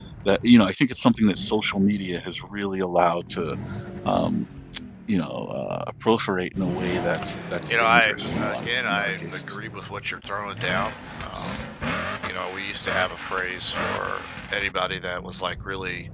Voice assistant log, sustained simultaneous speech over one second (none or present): present